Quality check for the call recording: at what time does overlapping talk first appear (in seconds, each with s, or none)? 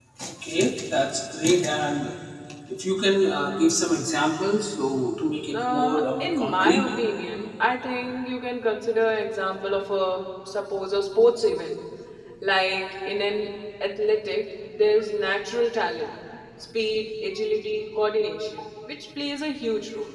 5.5 s